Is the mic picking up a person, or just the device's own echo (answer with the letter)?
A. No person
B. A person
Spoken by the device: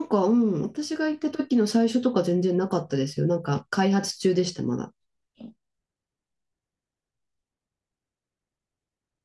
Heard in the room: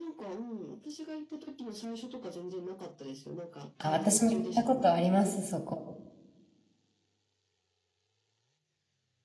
B